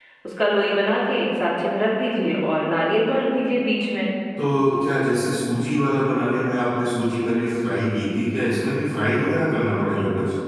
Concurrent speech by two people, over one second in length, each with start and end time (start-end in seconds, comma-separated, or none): none